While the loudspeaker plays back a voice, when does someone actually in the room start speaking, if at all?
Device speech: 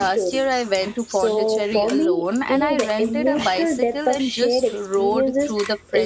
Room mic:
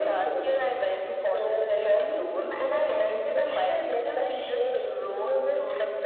none

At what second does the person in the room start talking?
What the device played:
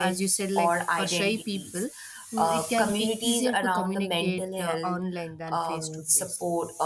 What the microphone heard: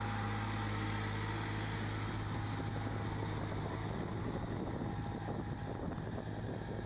none

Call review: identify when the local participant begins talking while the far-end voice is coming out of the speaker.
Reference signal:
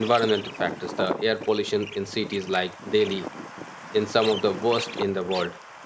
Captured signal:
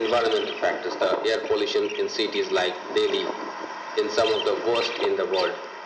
none

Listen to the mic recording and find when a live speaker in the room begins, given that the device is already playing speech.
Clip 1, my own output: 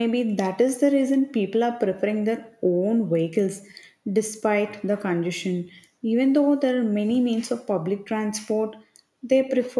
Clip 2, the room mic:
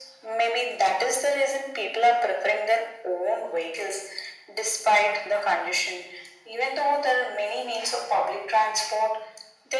none

